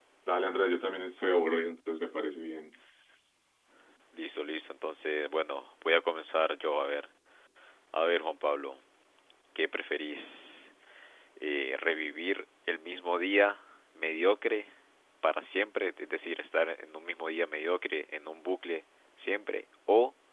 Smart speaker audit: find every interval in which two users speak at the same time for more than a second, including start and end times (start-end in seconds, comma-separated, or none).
none